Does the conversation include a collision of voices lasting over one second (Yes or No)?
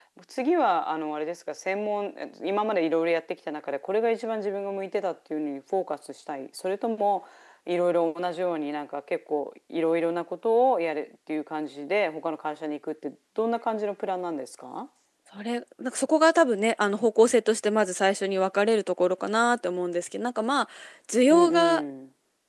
No